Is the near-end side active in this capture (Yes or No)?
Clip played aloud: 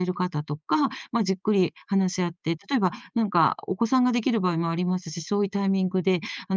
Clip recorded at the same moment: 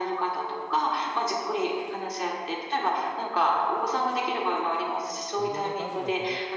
Yes